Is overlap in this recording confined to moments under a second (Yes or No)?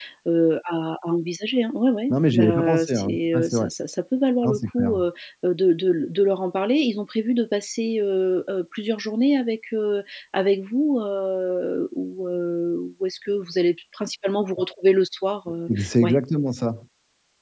No